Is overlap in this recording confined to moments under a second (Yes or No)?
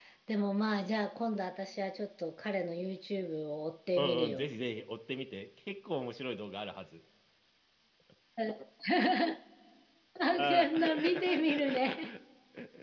No